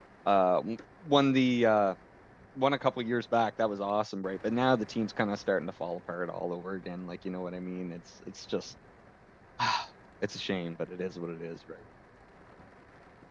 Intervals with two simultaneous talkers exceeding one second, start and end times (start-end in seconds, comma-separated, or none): none